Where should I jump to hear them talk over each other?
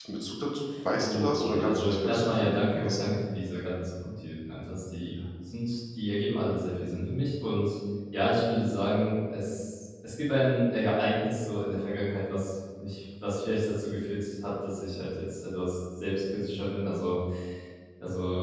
1.0 s

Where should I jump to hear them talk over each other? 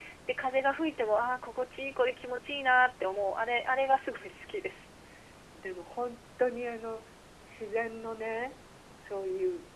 none

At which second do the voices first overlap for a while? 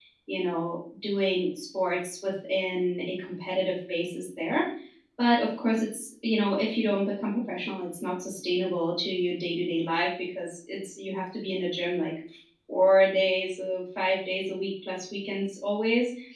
none

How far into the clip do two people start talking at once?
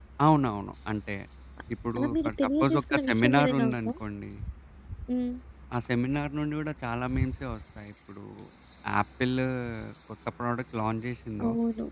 2.0 s

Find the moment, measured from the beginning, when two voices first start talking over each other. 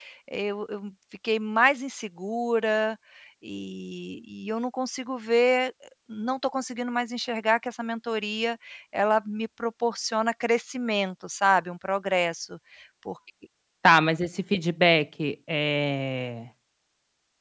none

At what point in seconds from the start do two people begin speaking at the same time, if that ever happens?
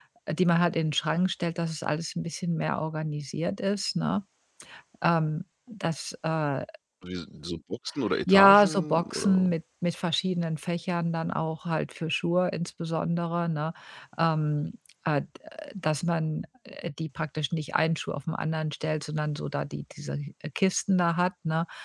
8.3 s

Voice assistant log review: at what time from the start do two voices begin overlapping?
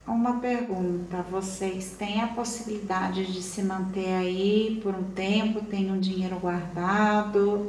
none

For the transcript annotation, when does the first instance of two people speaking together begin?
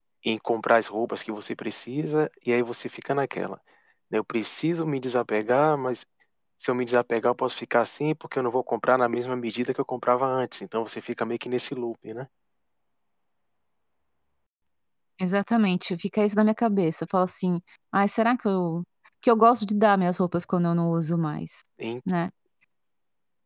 none

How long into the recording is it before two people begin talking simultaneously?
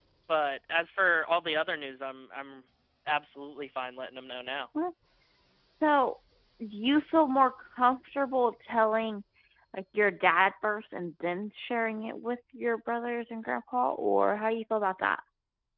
none

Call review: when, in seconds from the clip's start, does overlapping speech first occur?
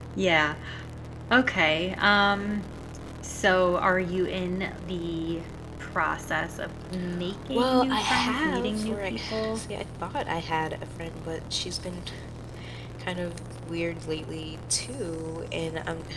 7.5 s

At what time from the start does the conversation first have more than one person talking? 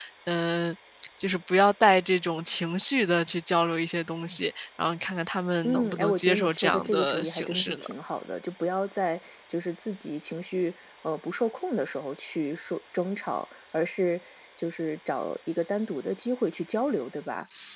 5.6 s

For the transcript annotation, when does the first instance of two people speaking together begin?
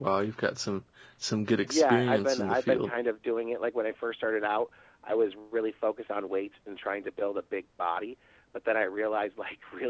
1.6 s

